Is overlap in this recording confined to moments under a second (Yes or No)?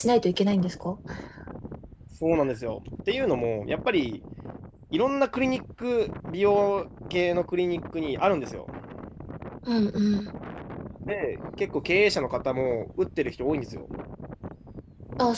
Yes